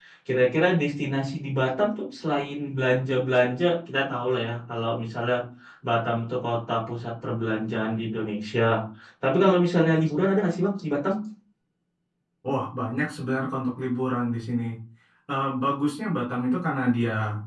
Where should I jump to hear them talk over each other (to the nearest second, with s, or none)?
none